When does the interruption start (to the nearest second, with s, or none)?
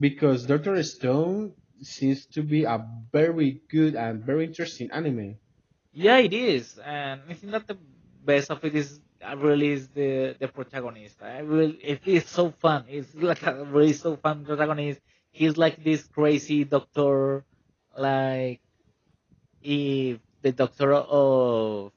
none